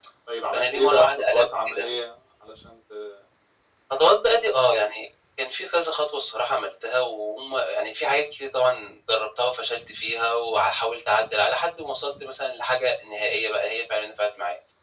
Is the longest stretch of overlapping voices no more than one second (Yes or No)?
No